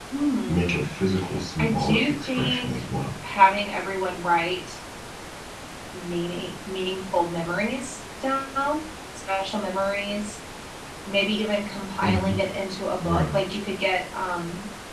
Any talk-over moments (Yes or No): Yes